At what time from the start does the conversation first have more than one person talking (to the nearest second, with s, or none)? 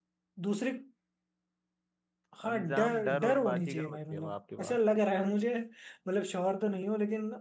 2 s